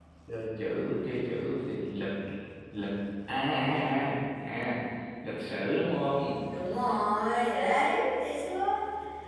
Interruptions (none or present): none